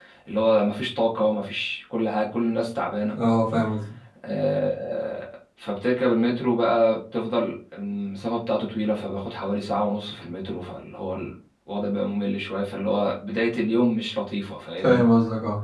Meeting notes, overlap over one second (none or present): none